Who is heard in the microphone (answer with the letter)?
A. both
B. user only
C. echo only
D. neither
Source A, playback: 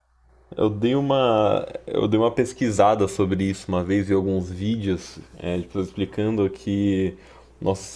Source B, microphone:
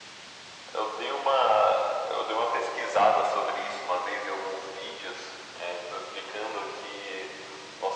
C